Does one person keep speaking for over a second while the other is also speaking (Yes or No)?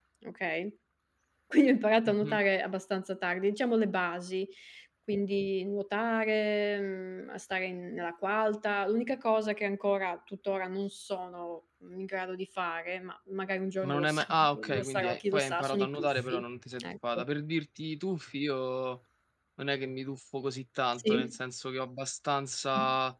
Yes